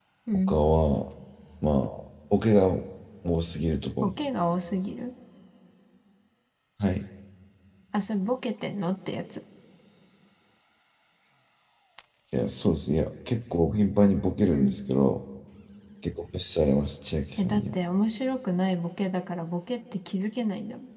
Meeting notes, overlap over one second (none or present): none